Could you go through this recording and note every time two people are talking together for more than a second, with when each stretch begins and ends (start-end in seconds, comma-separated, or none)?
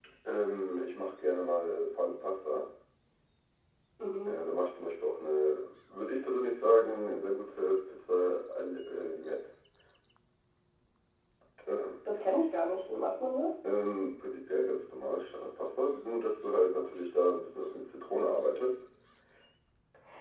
none